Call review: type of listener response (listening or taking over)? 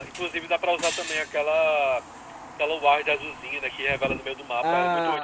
taking over